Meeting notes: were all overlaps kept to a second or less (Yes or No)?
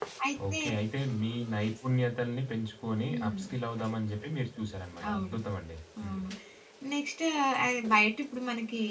Yes